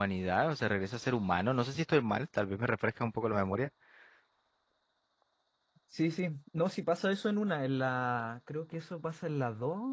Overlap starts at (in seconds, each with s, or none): none